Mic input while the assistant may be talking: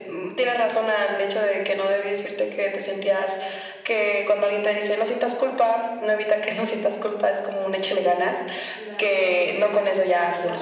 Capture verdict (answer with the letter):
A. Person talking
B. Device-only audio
A